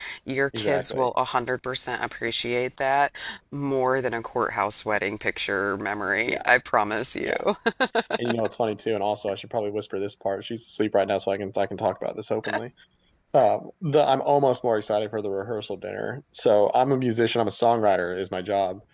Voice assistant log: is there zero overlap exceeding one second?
Yes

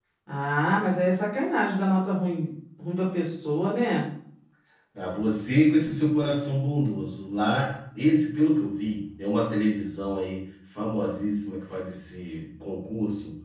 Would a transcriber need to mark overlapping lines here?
No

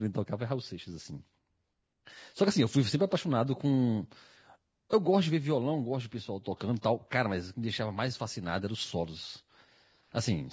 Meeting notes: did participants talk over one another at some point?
No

